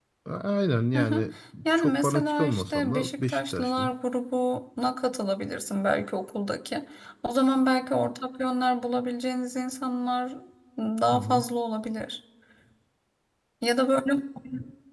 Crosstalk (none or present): present